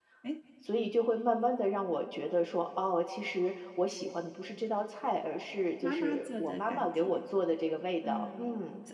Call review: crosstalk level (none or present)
present